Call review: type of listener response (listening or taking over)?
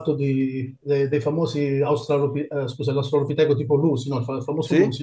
listening